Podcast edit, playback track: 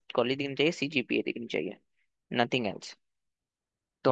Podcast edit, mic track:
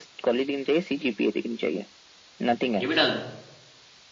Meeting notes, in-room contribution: present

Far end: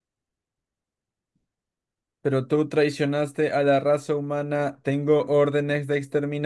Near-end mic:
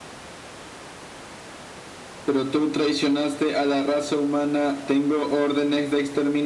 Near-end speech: none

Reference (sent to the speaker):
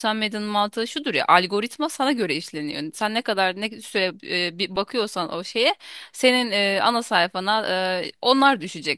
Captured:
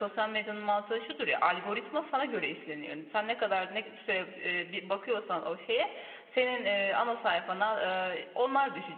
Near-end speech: none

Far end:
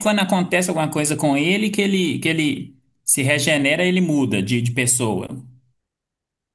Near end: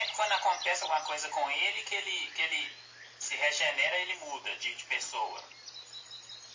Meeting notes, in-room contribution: none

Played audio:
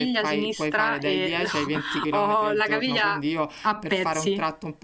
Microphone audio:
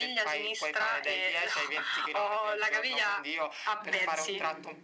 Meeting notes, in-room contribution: present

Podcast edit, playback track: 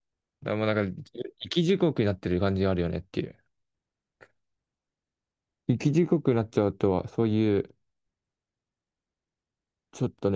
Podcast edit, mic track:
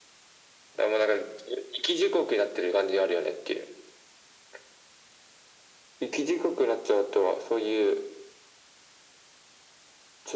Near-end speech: none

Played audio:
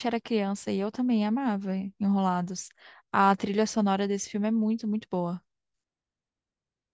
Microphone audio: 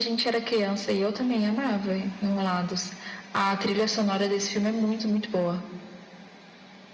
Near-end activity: none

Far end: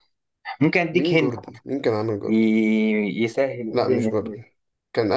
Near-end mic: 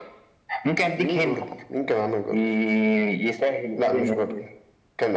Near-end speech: none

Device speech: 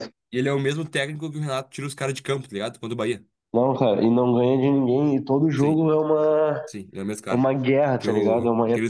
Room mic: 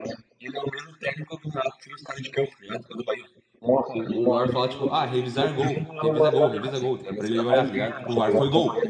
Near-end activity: present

